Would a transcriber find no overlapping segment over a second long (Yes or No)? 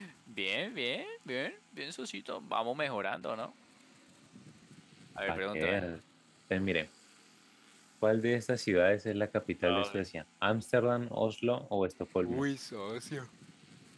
Yes